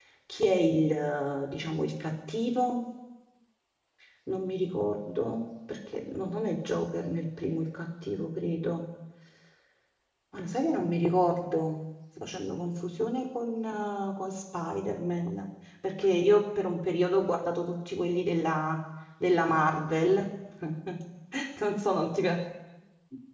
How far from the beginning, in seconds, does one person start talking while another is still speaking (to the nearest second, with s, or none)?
none